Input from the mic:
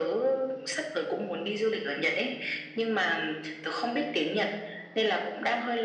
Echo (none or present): present